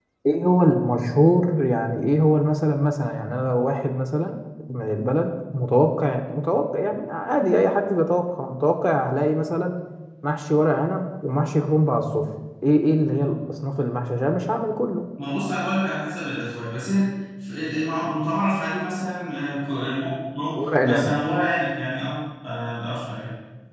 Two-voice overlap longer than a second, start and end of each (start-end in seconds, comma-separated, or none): none